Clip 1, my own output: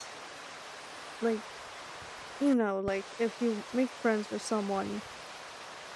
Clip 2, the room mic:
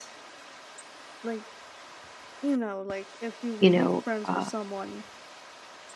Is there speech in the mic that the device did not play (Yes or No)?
Yes